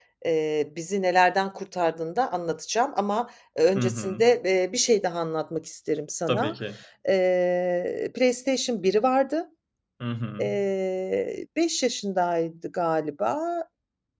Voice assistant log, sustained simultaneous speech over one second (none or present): none